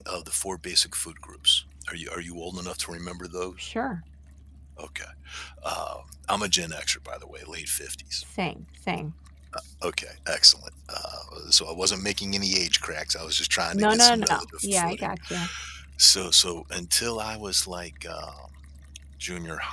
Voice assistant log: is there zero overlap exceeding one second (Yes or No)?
No